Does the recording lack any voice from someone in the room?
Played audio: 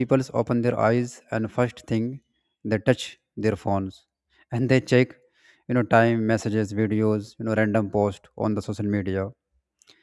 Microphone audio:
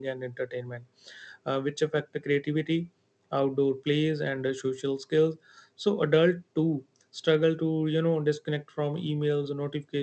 No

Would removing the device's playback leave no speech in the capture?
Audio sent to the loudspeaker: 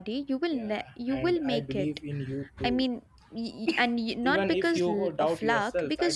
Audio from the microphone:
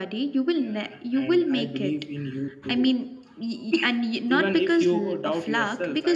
Yes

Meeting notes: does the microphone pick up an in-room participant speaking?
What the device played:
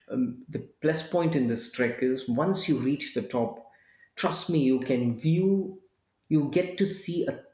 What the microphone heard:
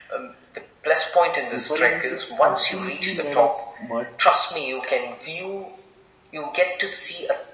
Yes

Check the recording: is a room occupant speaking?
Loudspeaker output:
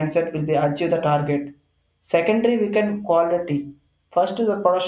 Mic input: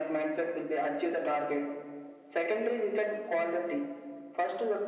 No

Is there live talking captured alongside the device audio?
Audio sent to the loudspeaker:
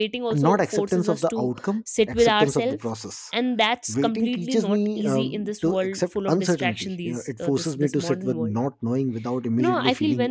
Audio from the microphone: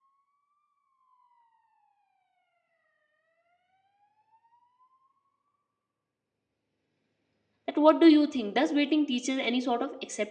Yes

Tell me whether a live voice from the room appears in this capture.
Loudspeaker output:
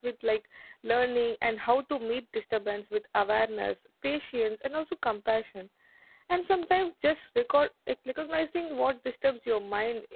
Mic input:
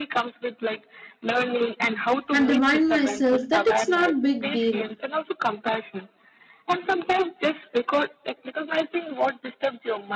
Yes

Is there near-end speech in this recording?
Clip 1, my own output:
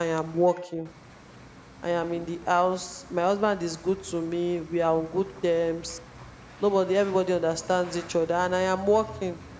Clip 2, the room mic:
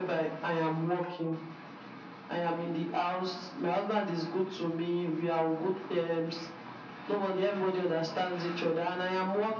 No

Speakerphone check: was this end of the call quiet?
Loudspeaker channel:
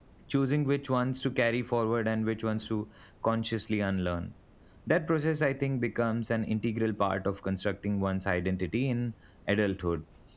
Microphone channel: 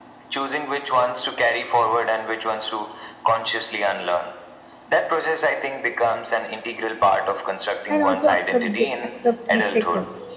No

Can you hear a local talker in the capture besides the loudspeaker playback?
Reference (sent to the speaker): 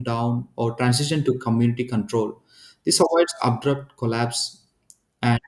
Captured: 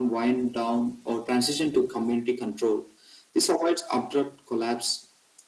No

